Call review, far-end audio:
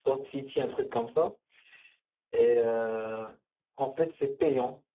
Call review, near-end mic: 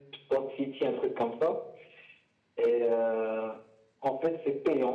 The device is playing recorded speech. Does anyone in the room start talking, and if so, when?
none

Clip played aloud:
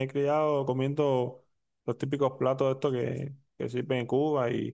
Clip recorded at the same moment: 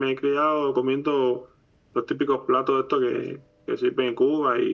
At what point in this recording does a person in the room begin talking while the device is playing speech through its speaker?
none

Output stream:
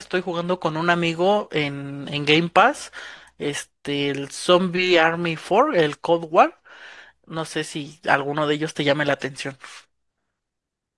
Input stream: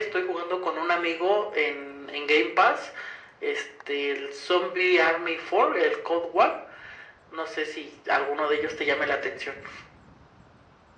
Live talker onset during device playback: none

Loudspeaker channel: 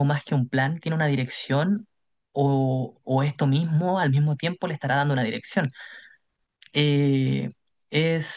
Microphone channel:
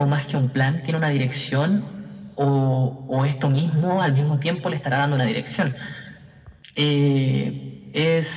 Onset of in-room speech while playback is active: none

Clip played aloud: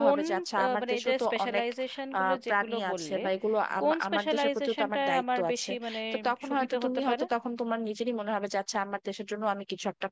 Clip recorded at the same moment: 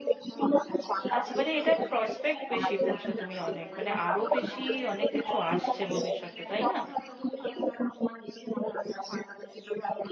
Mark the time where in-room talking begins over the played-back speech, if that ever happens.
1.1 s

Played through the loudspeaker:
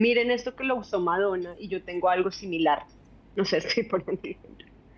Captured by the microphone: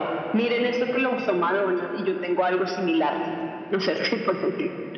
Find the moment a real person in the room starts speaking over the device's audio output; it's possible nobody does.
none

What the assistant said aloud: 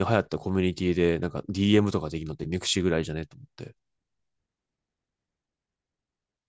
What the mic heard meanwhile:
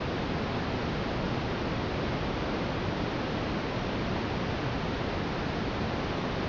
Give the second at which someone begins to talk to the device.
none

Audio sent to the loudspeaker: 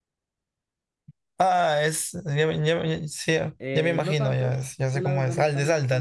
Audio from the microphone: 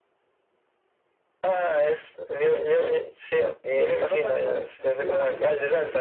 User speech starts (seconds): 5.0 s

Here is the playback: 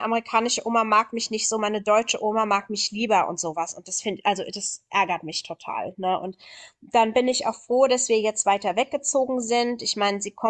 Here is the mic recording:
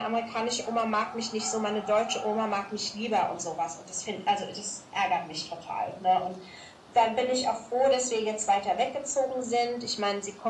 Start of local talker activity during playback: none

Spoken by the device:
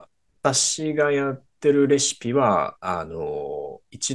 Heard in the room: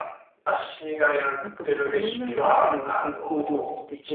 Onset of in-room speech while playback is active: 1.4 s

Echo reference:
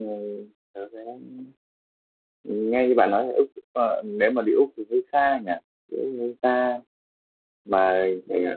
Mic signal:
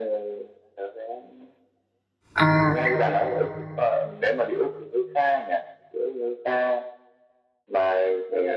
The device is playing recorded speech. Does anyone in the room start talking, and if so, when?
2.4 s

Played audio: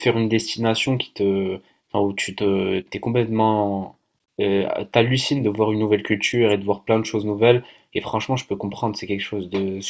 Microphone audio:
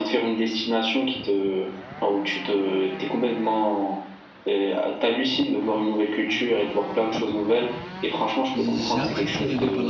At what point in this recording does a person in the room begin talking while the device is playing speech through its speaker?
8.5 s

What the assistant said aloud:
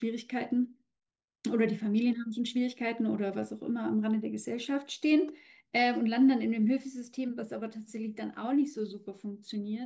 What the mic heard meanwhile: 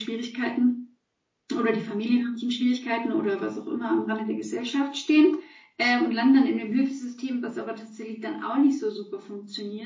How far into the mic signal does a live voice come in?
none

